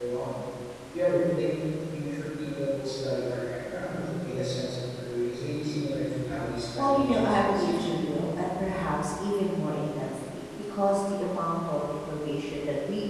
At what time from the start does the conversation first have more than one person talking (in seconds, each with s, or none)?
6.8 s